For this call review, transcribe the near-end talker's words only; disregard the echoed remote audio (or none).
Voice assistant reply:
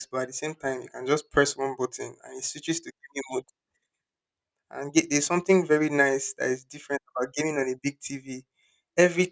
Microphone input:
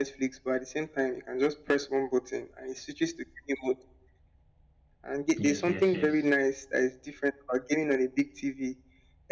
yes yes yes